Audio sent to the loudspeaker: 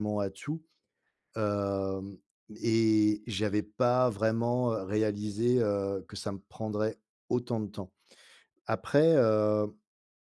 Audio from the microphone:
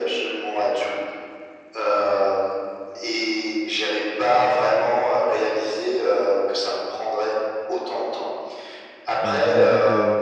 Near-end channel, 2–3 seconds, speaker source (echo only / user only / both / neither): echo only